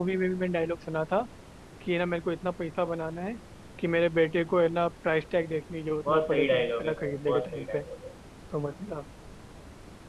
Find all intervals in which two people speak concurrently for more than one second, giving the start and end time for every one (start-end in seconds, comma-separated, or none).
6.0-7.8